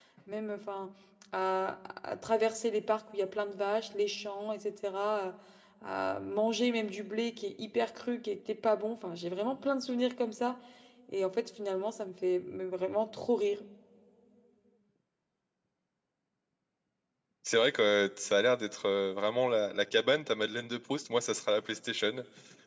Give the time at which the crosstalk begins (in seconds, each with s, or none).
none